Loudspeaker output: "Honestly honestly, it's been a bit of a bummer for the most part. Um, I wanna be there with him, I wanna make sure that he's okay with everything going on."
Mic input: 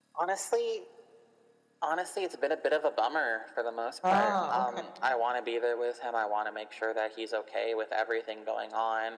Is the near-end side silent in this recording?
No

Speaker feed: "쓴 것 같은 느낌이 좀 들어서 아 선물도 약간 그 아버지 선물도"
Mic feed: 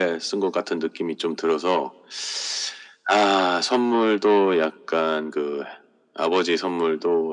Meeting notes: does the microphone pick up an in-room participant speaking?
No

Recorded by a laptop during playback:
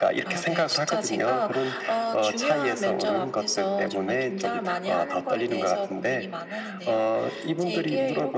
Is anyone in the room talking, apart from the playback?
No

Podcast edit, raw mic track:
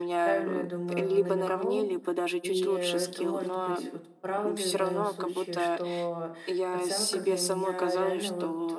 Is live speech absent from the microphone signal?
No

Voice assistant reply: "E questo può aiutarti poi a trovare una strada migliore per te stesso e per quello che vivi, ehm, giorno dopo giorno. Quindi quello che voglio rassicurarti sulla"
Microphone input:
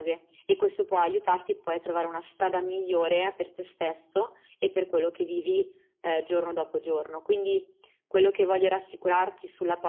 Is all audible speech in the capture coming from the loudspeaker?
Yes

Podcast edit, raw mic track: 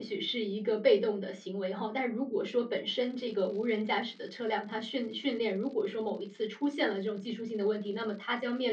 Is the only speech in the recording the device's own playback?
No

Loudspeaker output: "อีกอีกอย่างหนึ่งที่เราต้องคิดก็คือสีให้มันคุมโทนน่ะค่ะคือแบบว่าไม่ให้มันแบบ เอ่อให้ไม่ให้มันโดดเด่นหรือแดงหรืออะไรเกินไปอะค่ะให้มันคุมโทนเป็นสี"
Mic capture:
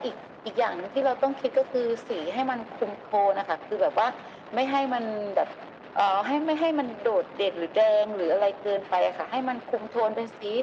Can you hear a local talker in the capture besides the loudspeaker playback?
No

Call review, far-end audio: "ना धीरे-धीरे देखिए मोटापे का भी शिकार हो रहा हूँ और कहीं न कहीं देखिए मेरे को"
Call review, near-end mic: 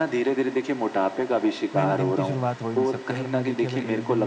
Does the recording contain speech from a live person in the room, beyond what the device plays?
Yes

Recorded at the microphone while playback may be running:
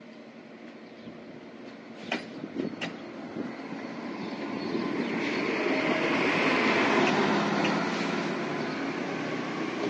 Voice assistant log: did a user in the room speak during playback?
No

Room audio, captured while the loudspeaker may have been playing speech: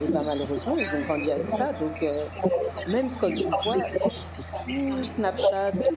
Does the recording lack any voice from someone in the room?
No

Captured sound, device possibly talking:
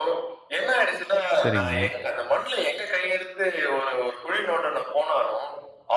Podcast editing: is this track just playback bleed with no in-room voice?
No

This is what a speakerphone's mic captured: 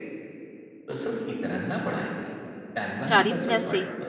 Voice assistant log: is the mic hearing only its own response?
No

